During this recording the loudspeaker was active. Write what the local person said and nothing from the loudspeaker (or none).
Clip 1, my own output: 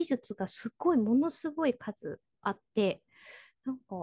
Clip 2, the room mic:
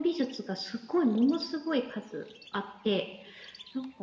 none